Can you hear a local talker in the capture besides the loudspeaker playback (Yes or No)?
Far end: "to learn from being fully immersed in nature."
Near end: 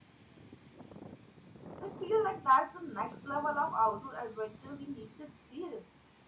Yes